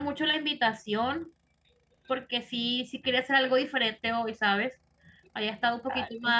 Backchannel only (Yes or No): Yes